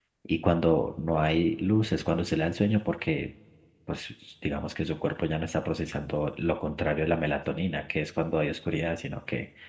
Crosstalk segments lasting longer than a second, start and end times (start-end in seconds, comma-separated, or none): none